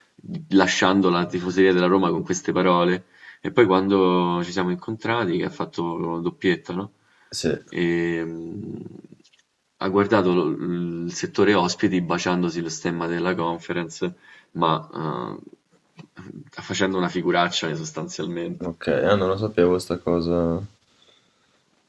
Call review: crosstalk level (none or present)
none